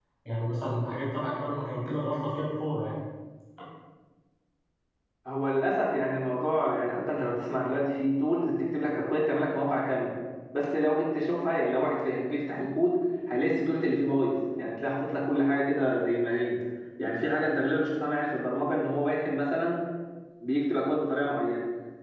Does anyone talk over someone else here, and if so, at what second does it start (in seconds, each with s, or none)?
none